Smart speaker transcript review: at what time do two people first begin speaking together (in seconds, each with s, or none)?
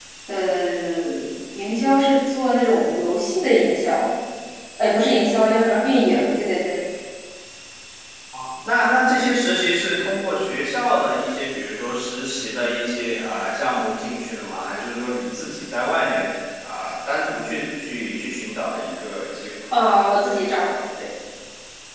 none